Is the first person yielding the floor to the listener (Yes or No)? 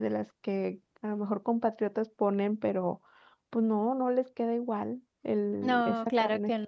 Yes